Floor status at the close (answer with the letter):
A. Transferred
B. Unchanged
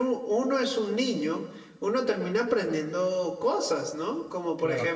B